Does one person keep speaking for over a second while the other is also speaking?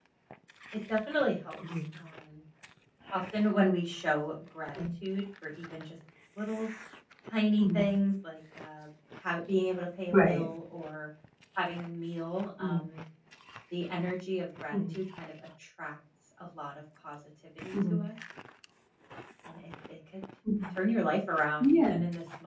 No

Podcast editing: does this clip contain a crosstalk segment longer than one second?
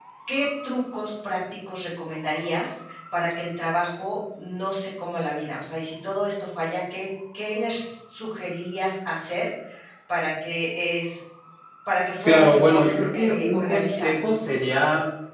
Yes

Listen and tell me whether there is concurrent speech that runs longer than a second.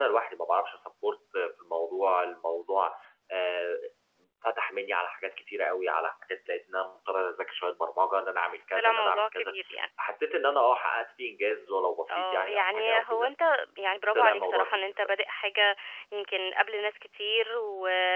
Yes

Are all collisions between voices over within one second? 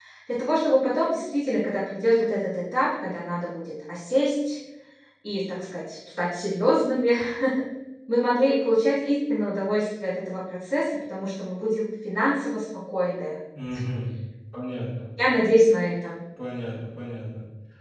Yes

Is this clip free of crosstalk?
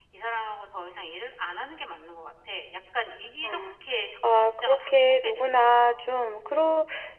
No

